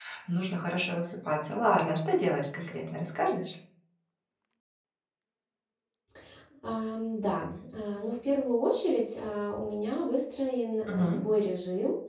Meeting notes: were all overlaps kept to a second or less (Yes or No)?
Yes